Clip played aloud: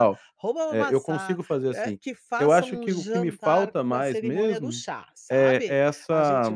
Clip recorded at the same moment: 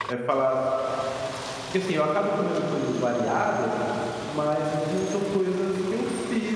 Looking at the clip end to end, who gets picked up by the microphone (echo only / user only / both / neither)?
user only